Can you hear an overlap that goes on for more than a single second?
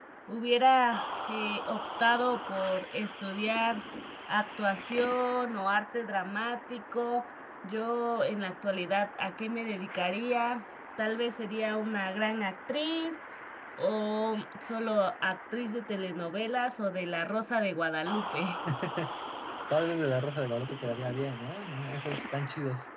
No

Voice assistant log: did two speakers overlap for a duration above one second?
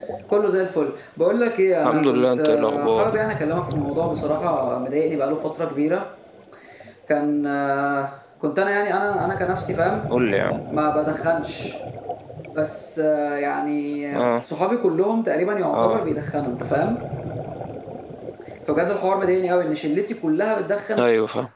Yes, from 1.9 s

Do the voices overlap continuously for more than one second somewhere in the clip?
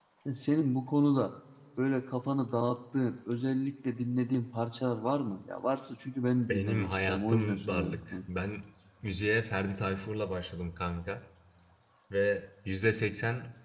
Yes, from 6.5 s

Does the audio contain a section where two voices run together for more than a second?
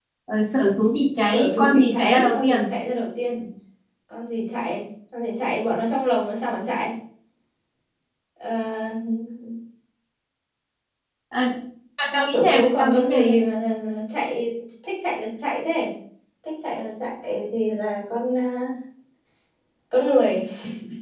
Yes, from 1.3 s

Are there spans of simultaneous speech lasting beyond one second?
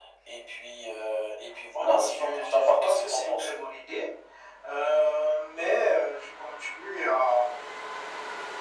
Yes, from 1.8 s

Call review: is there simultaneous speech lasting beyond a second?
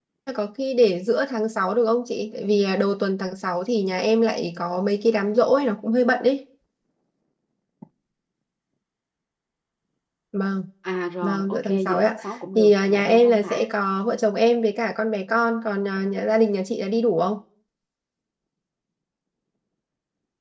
Yes, from 11.2 s

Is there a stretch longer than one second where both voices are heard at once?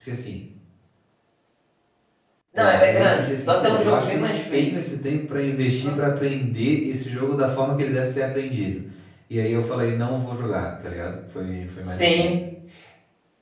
Yes, from 2.6 s

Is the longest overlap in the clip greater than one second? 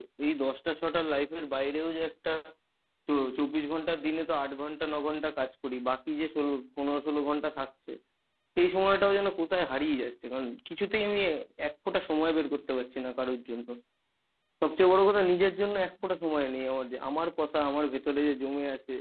No

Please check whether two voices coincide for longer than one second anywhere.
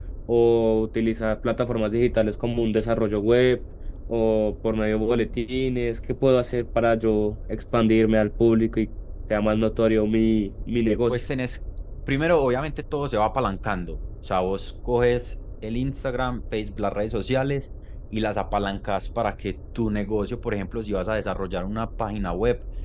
No

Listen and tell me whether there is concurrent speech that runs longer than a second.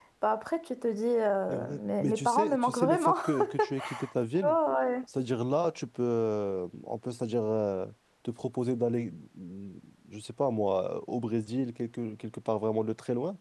Yes, from 1.5 s

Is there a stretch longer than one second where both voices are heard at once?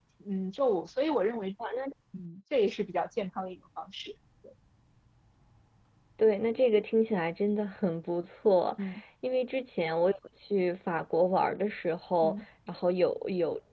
No

